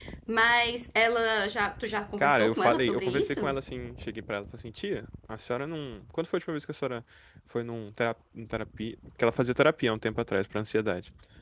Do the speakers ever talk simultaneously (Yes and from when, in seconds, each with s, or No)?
Yes, from 2.2 s